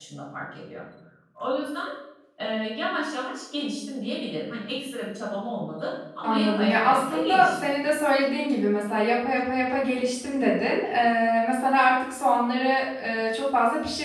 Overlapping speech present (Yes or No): Yes